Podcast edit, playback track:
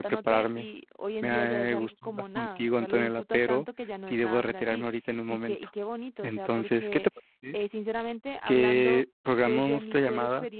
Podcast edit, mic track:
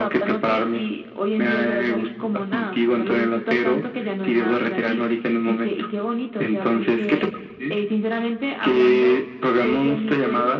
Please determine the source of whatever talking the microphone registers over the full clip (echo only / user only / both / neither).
both